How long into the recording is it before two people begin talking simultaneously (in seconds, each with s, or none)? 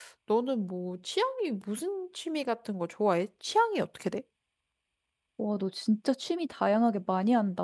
none